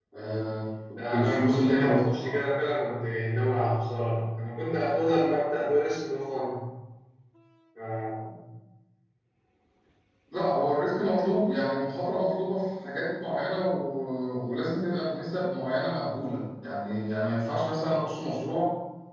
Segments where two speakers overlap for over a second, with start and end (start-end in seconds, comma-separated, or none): 1.1-2.3